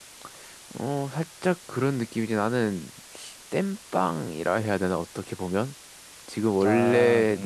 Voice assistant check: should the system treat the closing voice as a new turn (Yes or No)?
No